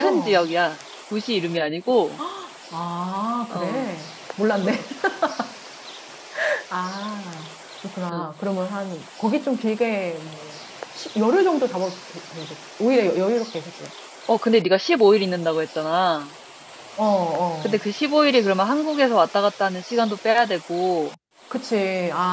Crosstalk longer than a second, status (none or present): none